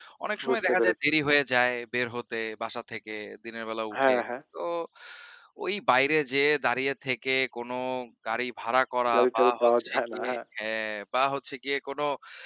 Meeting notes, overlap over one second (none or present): present